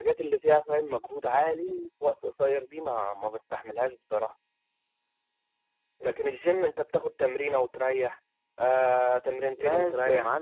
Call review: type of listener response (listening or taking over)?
taking over